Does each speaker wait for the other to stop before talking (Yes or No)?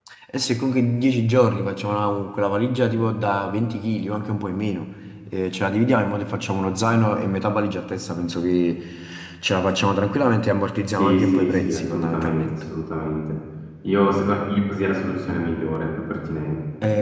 No